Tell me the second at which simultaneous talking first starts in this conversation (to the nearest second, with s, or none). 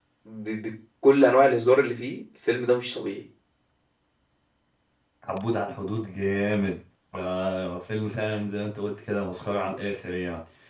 none